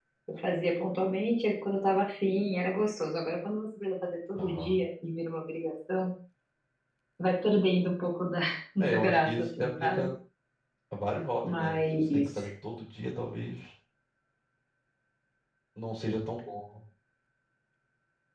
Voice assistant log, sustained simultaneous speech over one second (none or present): present